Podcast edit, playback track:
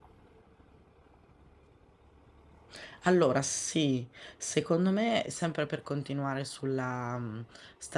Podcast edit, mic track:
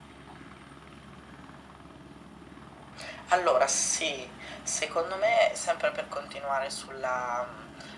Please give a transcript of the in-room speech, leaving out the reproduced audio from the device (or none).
none